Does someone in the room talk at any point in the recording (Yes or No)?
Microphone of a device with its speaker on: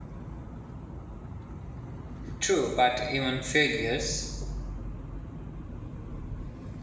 Yes